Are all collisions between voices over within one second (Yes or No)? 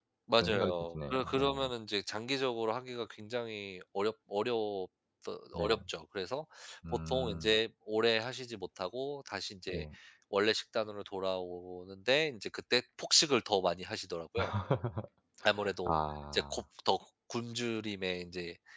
No